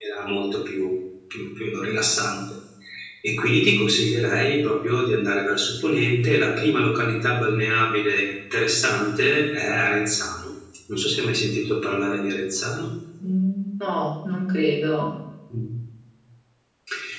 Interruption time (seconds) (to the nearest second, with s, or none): none